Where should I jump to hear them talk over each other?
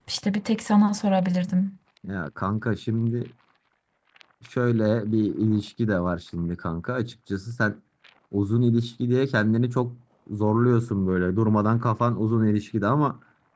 none

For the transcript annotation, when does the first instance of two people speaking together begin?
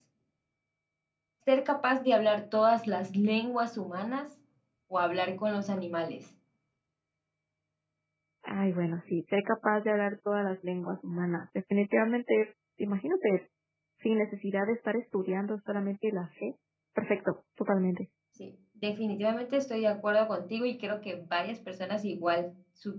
none

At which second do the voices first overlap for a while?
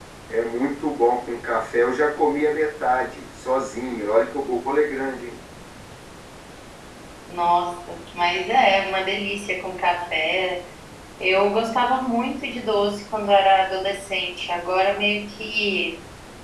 none

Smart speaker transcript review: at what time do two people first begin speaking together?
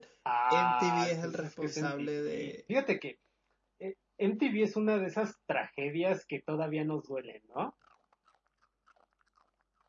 0.5 s

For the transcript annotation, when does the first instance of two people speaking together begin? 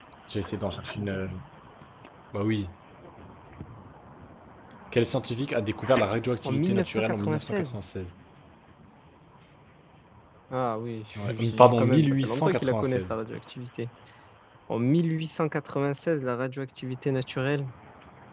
6.5 s

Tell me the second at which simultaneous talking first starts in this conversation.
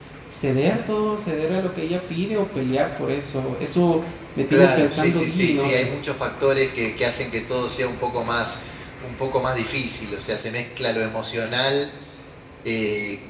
4.5 s

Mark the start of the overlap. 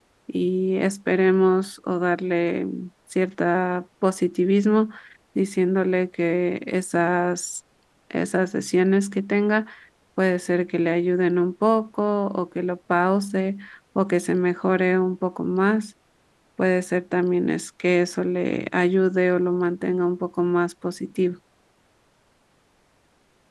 none

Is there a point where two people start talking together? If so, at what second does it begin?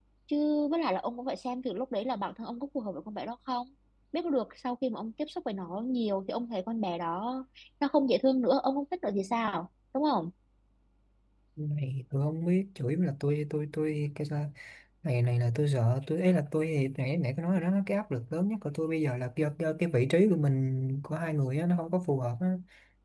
none

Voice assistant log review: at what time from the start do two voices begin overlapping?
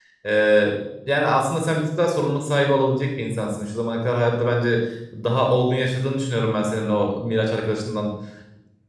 none

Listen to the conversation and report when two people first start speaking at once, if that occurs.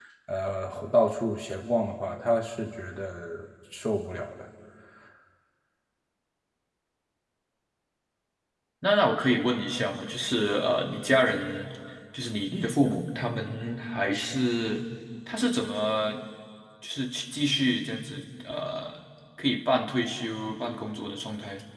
none

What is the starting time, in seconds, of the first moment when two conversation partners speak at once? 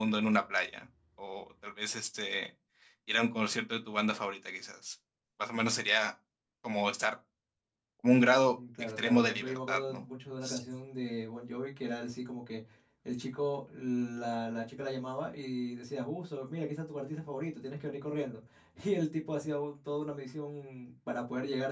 8.4 s

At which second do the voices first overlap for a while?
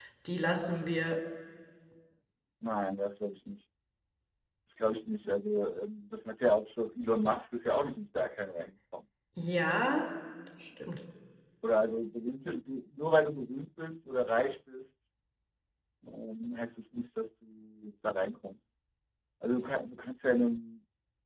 none

